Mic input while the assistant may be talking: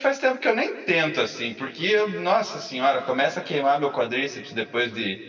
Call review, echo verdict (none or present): none